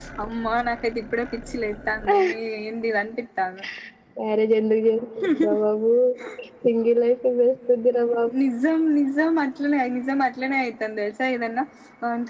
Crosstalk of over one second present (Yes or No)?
No